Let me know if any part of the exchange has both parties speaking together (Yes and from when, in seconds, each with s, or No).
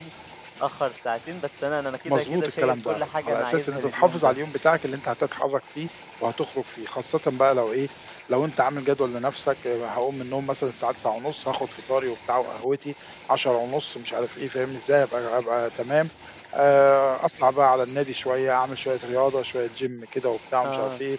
Yes, from 2.1 s